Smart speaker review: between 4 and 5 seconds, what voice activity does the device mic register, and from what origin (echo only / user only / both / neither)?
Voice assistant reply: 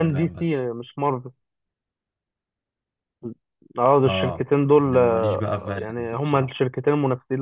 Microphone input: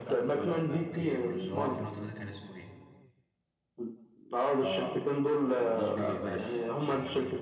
echo only